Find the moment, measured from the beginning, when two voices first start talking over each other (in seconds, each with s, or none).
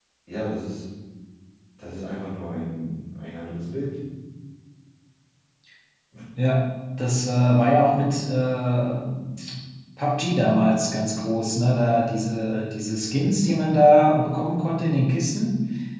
none